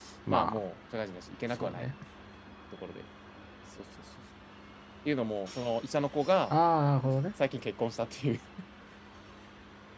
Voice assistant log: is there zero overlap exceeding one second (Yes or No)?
Yes